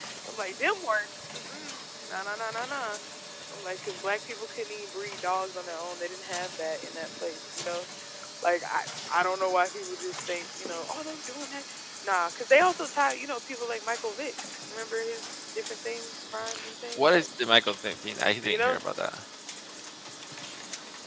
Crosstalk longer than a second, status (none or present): none